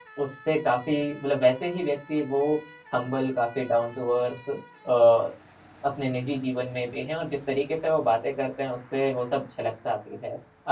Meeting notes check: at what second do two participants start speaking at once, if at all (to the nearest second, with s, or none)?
none